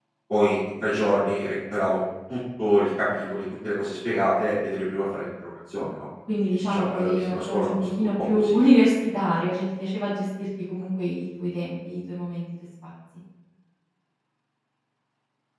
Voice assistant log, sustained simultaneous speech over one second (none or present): present